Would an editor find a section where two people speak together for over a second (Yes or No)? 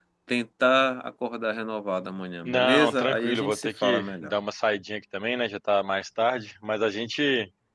Yes